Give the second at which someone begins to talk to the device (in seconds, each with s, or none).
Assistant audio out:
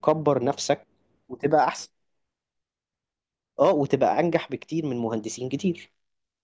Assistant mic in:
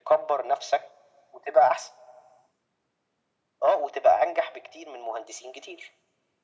none